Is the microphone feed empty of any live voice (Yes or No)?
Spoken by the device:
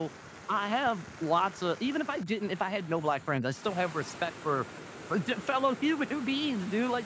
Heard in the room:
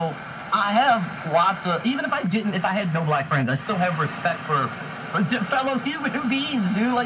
Yes